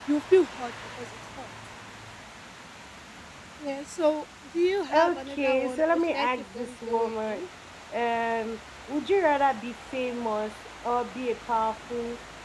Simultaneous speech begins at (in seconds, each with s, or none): 4.9 s